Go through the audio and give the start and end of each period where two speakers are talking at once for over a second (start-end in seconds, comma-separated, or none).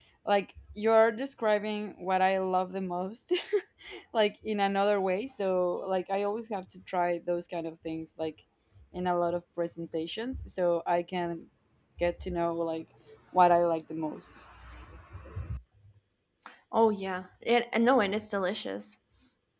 none